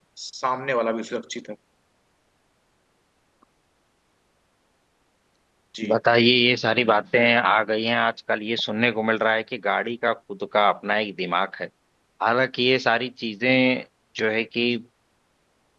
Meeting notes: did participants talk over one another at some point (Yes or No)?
No